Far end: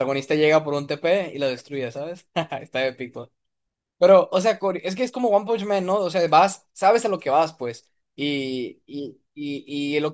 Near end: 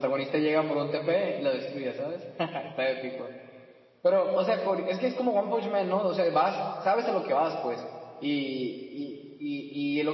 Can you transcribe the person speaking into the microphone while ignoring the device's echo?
none

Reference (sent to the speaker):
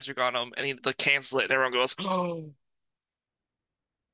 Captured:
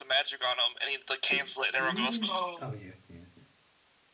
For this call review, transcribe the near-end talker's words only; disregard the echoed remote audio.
Did, did he even? Oh yeah, yeah, yeah.

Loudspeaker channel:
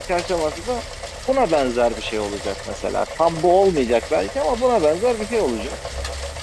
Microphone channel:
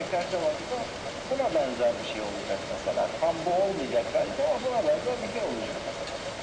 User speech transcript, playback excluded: none

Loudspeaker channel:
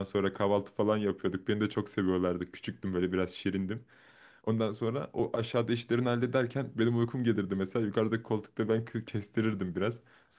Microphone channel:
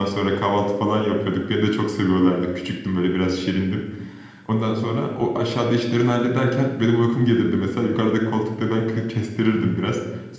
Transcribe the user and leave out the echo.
none

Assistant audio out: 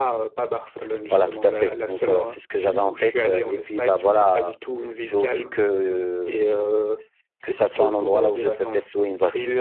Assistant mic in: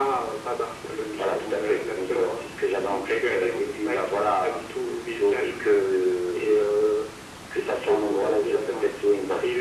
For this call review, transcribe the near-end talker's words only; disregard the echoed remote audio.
none

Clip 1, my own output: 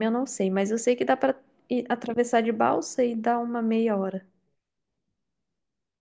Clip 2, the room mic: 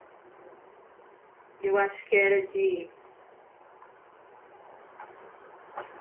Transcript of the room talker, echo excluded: eu acho que era de

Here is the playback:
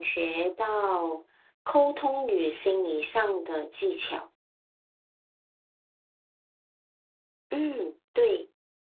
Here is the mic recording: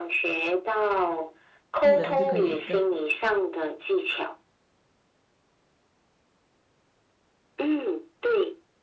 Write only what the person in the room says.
技能，就可以跟

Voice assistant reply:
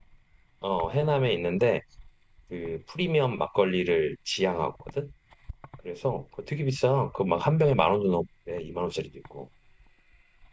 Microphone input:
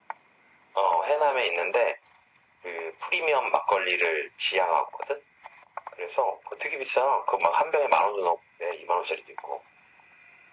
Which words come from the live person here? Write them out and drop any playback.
none

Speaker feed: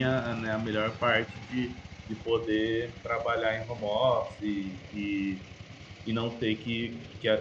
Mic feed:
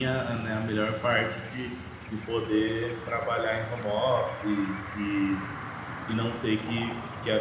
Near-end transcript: none

